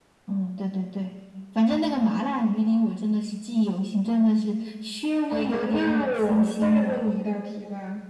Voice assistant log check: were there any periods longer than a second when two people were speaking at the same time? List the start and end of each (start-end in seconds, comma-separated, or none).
5.3-7.0